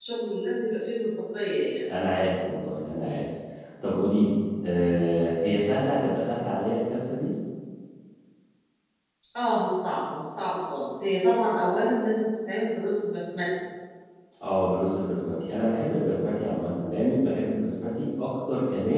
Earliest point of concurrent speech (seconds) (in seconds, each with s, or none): none